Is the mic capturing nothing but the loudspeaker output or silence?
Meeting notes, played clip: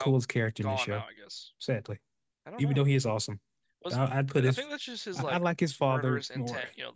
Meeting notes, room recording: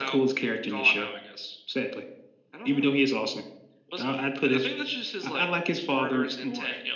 Yes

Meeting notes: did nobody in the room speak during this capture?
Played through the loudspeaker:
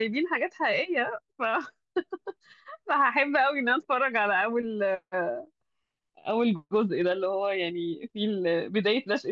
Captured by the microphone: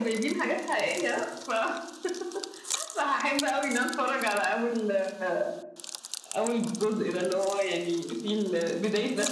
Yes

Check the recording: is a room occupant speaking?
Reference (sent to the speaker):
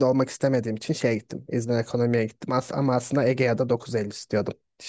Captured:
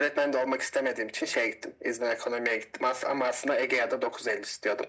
No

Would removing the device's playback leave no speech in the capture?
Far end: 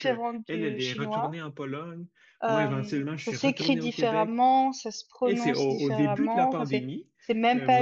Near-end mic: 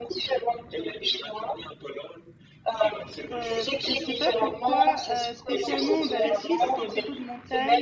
No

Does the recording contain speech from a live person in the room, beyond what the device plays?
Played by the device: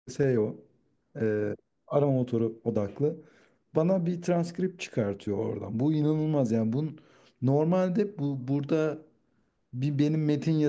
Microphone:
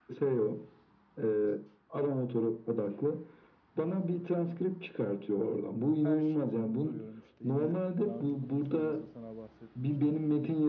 Yes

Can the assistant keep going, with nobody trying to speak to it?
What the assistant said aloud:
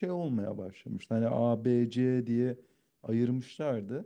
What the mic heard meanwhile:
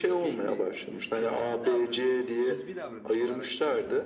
No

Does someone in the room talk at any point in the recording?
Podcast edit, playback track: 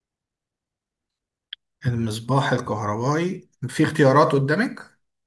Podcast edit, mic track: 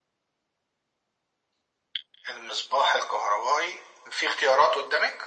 No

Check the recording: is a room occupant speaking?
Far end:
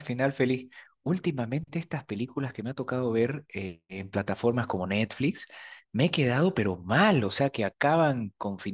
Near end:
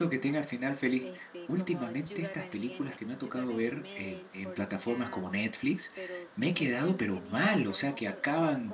Yes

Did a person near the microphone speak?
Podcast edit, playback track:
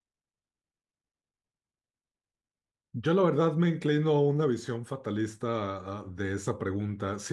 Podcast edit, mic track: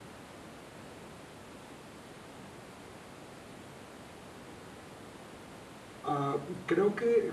Yes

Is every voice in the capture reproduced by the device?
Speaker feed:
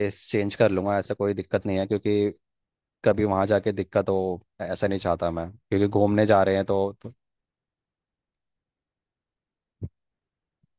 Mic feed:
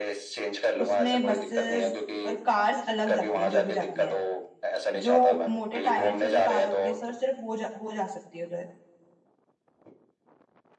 No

